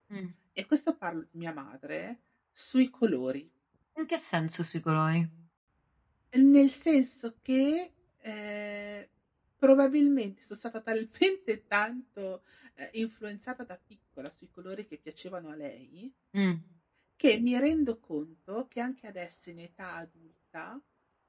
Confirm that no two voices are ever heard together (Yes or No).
Yes